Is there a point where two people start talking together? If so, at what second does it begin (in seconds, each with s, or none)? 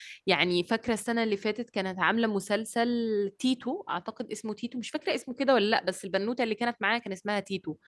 none